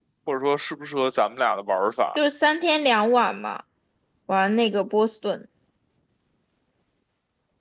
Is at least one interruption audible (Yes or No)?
No